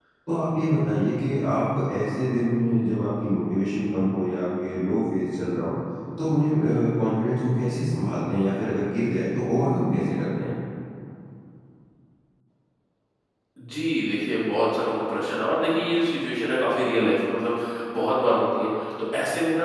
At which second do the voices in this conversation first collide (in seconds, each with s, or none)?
none